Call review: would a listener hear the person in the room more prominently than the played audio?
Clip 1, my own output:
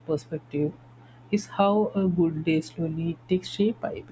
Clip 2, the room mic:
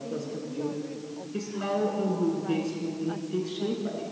No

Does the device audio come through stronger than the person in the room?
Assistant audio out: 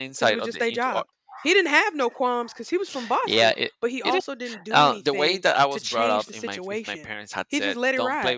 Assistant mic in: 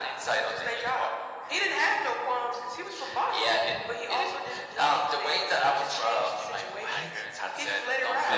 Yes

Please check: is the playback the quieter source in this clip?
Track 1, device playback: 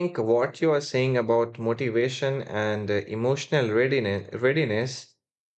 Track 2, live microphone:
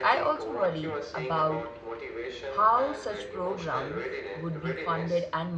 Yes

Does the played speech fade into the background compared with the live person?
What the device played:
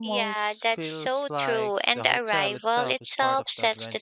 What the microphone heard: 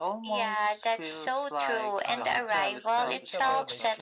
No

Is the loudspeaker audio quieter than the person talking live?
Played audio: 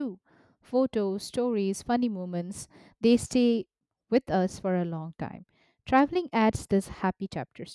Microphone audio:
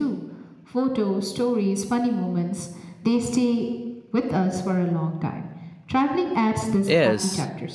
Yes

